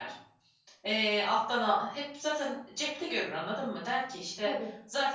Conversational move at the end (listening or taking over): listening